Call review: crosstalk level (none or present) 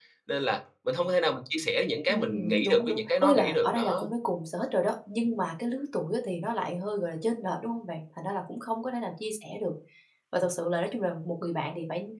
present